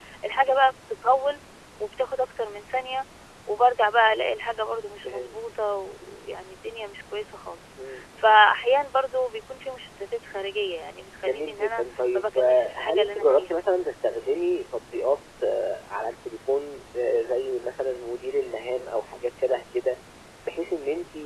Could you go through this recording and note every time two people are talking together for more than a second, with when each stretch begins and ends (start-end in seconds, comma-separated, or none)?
11.2-13.6